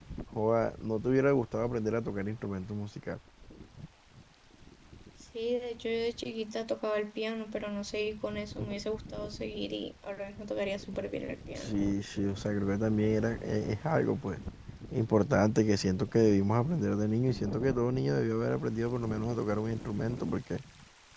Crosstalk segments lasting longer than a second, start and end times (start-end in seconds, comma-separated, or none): none